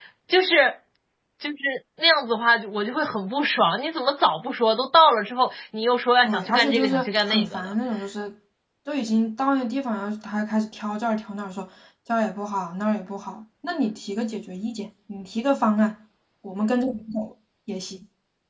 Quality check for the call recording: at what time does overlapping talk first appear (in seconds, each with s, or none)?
6.2 s